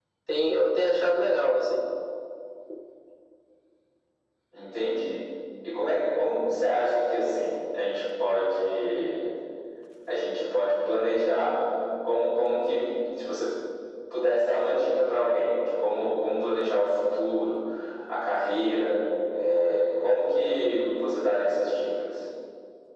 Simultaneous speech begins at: none

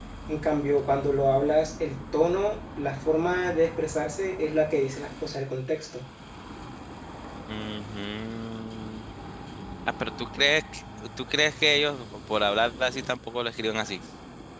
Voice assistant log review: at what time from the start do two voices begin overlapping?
none

